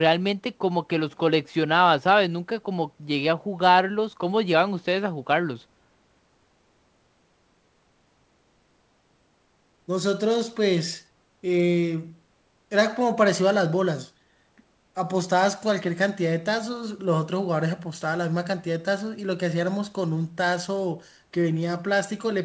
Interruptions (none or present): none